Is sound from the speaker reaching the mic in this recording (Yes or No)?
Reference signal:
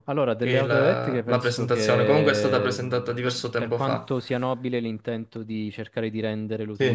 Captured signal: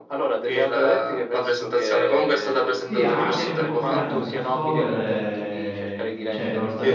Yes